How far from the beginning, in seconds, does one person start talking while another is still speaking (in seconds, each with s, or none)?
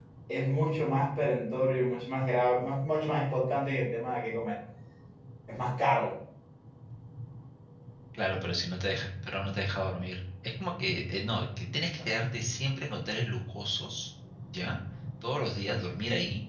none